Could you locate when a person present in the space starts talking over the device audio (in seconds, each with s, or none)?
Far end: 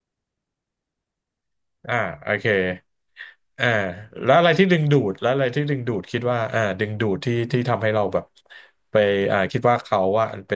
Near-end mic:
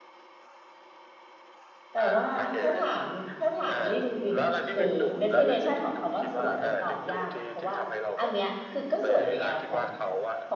1.9 s